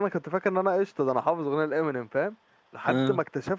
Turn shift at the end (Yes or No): No